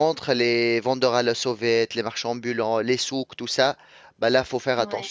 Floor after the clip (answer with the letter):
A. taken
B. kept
B